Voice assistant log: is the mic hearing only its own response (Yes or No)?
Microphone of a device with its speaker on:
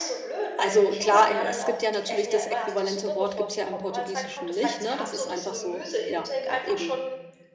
No